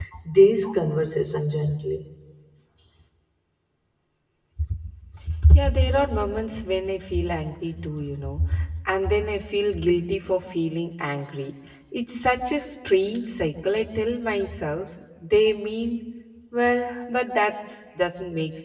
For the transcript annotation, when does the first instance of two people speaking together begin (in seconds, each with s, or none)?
none